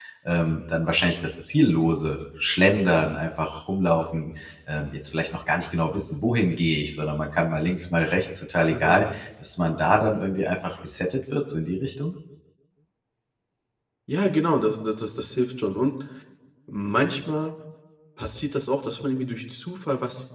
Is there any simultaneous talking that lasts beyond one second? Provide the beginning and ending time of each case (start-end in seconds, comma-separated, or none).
none